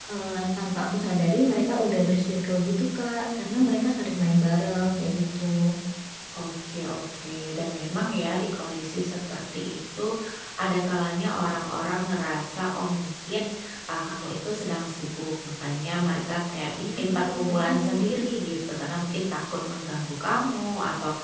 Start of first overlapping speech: 16.8 s

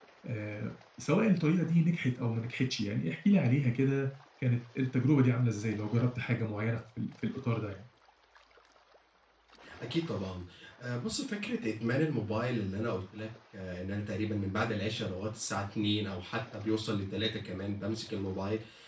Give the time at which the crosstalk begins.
none

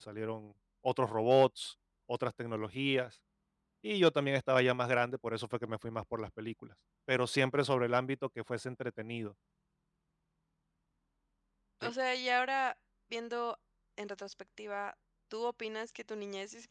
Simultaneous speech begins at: none

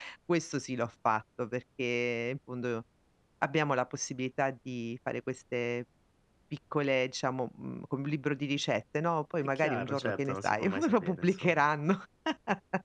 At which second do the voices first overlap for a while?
9.4 s

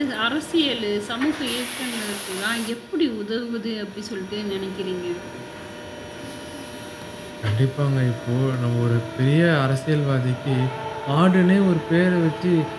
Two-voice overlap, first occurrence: none

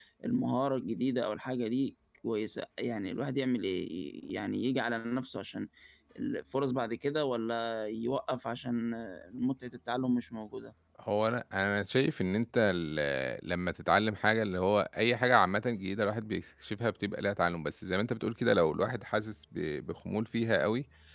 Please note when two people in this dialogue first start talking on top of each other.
none

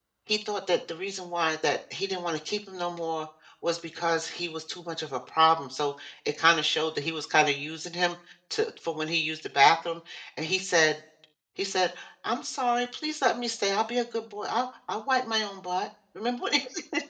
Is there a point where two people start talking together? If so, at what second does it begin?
none

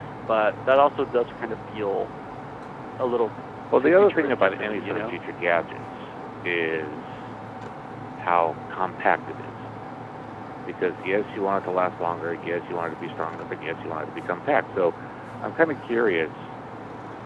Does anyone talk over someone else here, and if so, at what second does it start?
3.8 s

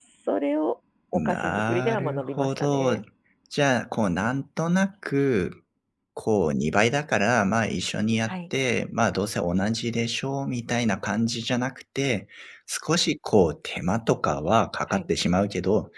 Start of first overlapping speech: 1.1 s

